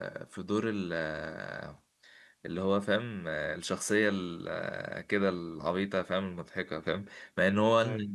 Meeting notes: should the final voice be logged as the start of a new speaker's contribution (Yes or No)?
No